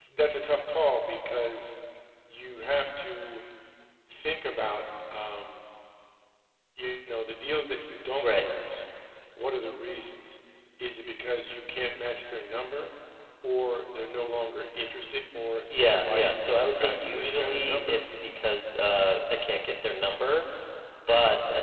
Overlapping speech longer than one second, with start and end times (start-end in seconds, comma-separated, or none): 15.8-18.0